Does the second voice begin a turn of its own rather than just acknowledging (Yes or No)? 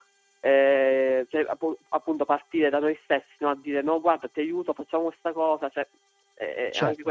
Yes